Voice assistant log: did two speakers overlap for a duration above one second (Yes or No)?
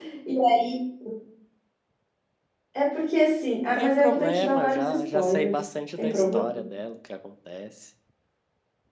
Yes